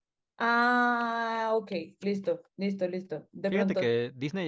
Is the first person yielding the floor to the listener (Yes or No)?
Yes